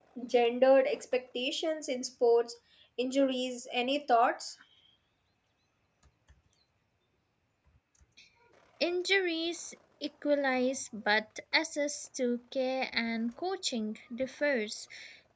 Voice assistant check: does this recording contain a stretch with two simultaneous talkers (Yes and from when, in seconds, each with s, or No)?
No